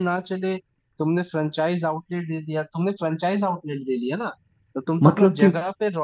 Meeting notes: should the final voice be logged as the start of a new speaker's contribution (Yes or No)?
No